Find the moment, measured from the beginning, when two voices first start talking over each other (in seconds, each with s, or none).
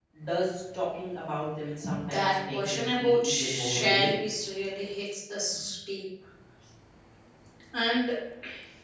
2.1 s